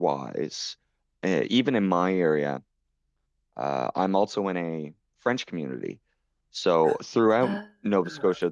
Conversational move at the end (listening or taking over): listening